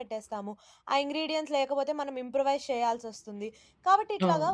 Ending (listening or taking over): listening